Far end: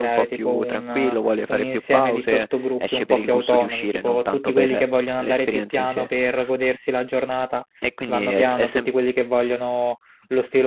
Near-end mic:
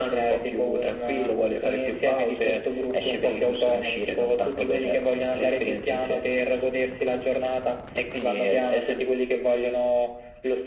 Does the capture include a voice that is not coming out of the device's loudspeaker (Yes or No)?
No